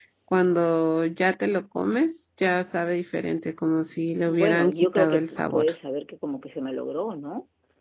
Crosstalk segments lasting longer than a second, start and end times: 4.3-5.7

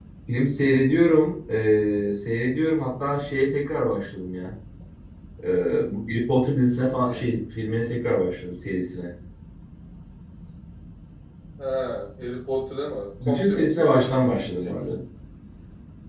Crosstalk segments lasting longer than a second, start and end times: 13.2-15.0

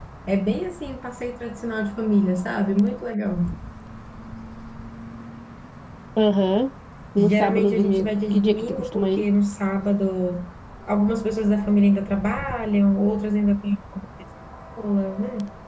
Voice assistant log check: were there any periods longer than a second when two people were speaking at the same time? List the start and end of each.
7.2-9.2

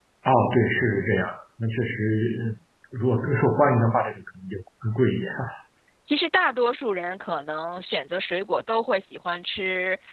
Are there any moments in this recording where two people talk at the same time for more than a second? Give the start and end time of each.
none

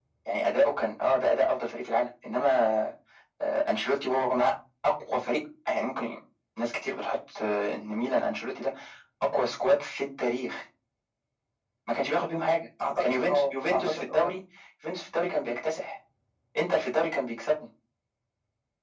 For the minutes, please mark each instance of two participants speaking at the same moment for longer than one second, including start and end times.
13.0-14.3

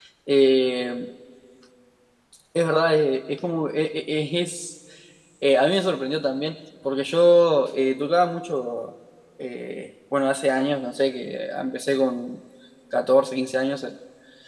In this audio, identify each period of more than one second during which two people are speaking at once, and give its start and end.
none

